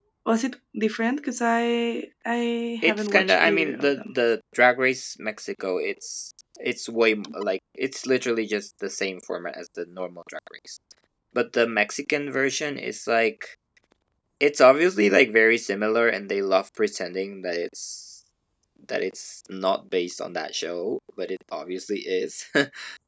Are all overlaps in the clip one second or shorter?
No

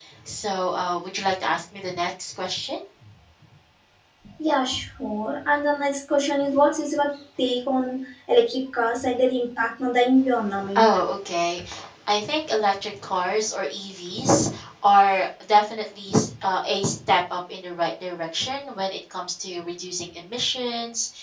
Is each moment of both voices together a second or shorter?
Yes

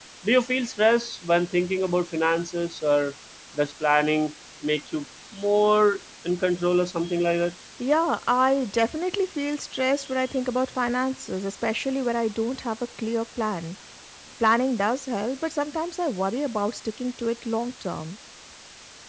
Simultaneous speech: No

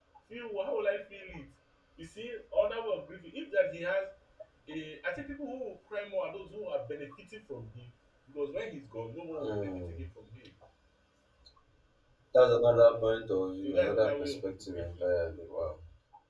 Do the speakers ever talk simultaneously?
Yes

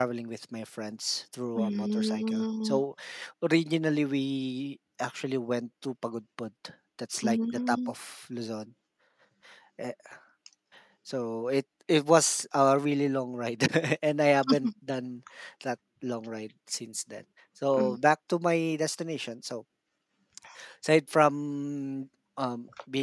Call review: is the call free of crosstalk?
No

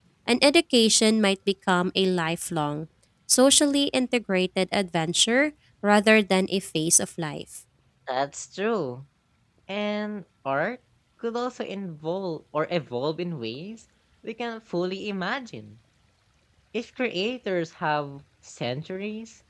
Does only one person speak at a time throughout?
Yes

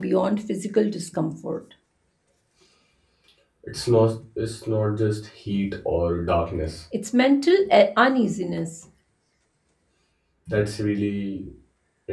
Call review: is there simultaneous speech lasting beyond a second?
No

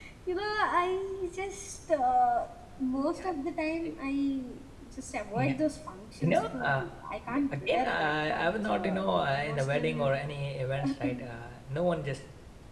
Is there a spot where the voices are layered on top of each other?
Yes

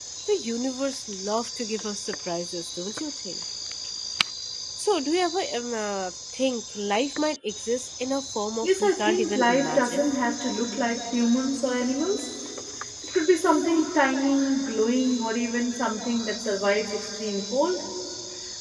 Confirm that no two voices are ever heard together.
No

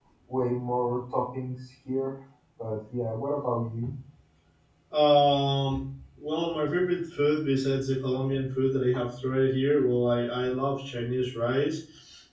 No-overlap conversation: Yes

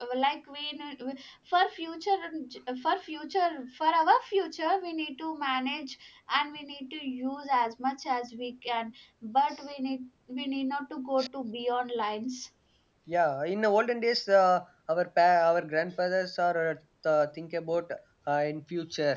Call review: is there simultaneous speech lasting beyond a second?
No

